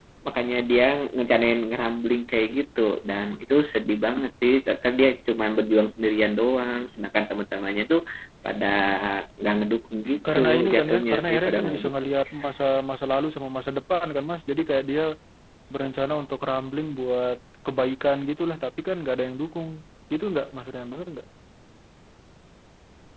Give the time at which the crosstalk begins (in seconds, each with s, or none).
10.2 s